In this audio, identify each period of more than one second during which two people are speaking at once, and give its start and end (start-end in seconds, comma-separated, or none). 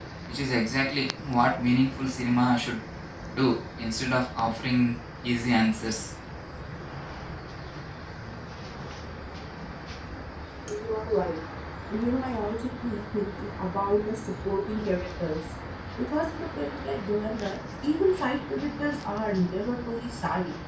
none